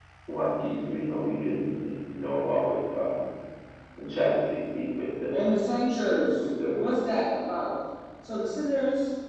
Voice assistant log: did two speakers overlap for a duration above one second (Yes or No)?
No